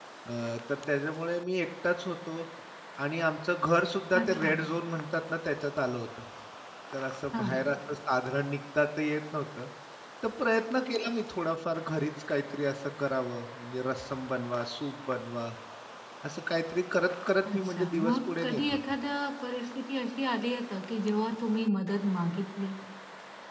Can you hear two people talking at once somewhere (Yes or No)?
Yes